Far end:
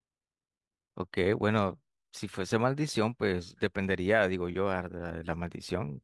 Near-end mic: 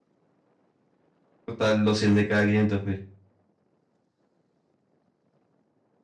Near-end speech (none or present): present